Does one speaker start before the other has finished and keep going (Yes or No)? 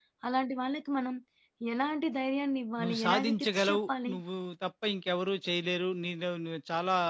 Yes